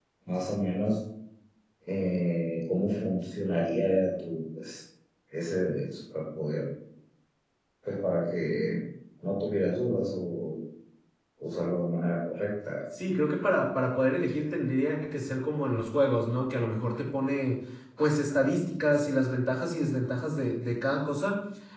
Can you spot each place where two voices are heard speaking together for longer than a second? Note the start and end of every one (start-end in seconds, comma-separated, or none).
none